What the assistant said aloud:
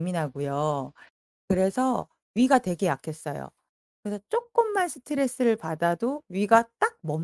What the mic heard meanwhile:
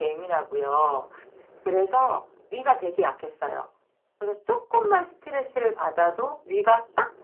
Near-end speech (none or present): none